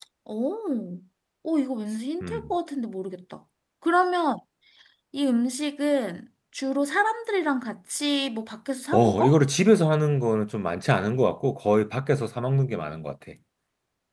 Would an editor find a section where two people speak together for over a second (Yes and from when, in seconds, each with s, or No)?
No